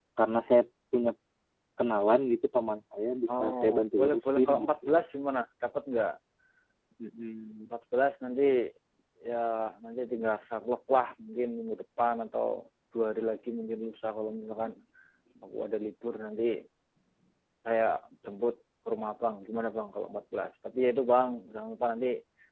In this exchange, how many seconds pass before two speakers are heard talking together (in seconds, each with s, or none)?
3.3 s